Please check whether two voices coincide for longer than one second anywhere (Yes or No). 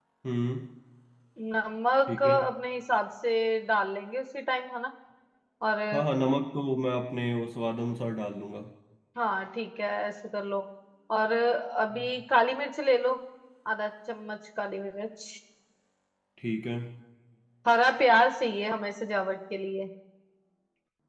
No